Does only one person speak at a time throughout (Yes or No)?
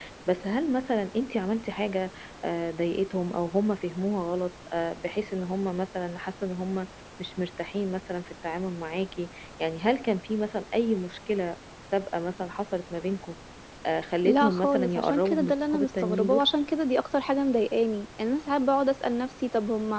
No